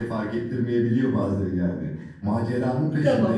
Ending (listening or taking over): listening